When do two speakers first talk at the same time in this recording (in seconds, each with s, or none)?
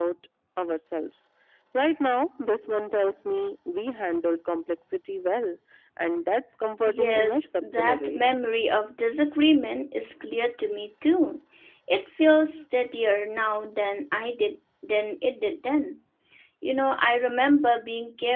6.9 s